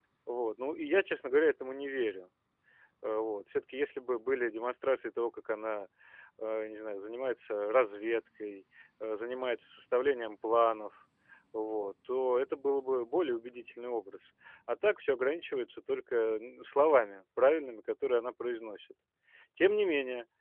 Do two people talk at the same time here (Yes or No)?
No